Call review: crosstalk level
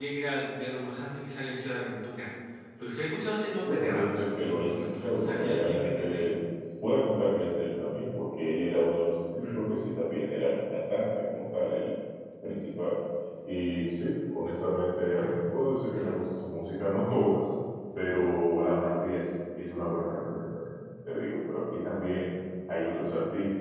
present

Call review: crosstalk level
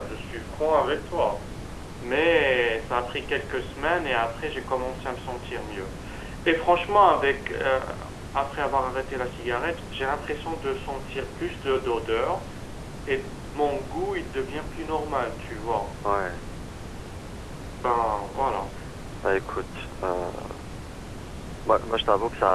none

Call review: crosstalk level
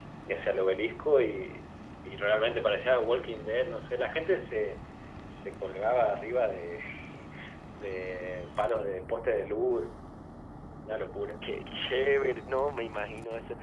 none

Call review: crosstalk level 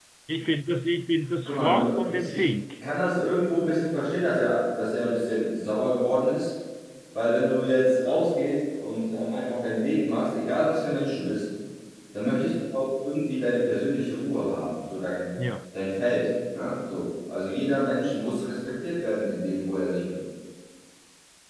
present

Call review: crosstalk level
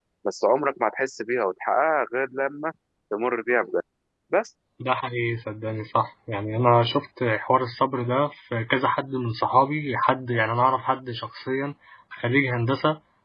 none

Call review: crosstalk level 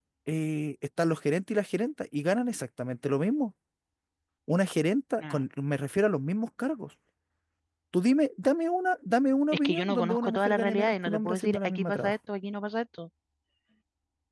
present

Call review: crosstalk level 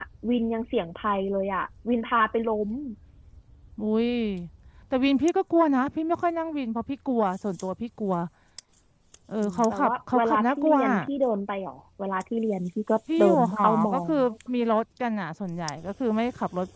present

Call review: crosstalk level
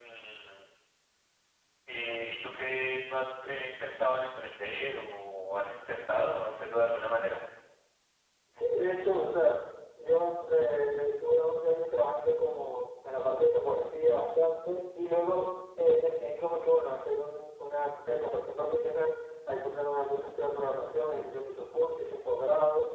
none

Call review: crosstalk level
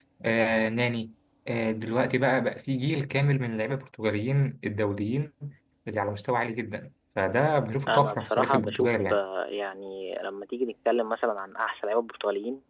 present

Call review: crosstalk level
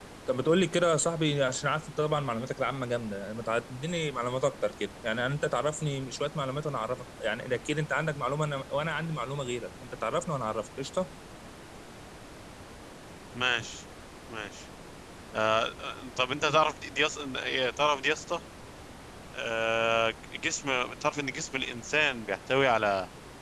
none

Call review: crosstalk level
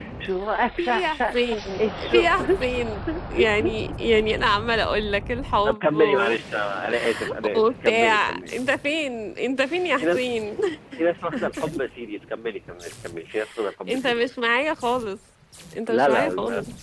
present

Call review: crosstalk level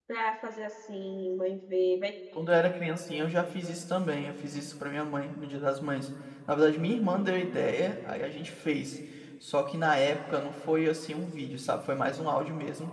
none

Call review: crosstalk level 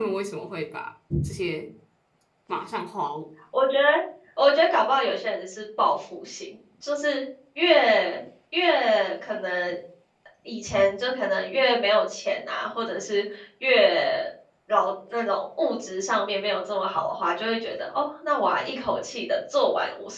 none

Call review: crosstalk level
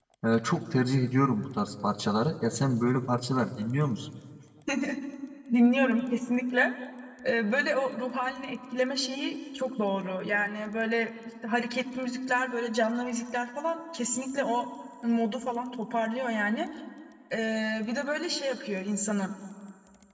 none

